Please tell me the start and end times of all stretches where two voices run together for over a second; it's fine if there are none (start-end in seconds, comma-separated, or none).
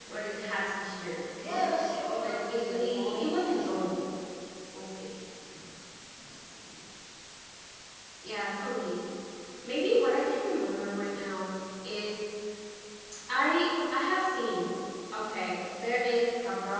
2.2-3.9